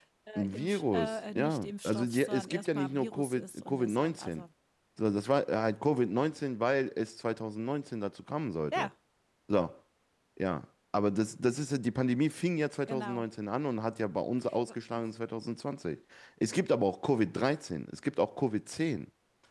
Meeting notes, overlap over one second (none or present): present